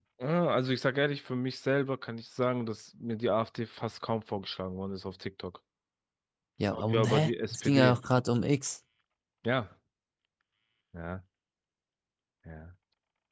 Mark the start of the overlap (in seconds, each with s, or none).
6.7 s